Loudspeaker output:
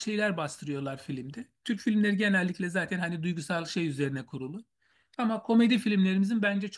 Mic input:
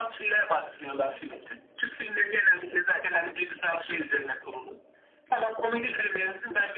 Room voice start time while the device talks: none

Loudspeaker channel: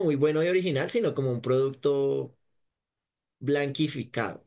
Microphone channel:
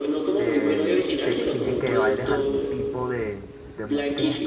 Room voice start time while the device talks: 0.3 s

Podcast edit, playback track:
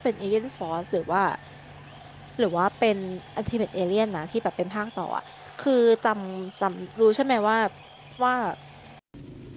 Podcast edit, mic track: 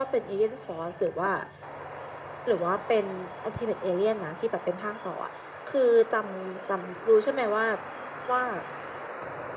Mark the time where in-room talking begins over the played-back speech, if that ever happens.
none

